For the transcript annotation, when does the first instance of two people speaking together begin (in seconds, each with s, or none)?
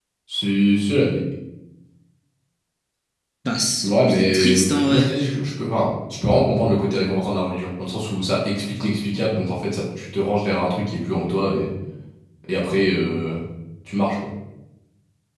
3.8 s